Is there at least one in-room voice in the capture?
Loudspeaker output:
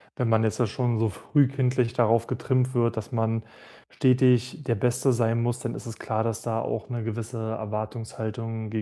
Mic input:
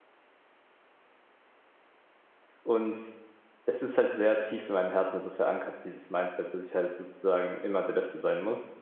Yes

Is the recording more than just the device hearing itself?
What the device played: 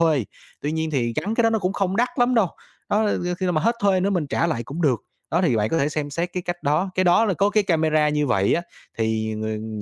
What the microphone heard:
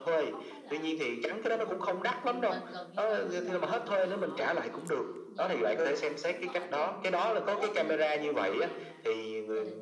Yes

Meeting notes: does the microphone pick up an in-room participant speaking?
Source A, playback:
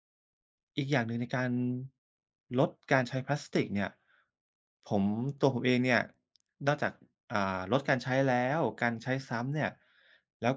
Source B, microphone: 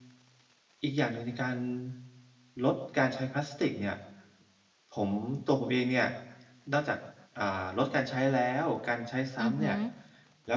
Yes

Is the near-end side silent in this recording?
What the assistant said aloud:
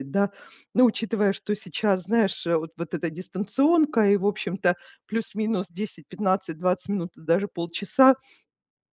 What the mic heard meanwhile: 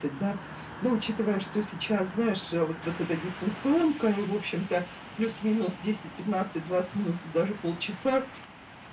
Yes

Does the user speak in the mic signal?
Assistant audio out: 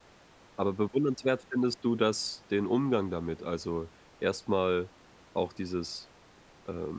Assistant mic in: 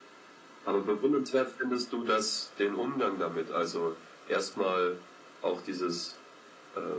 No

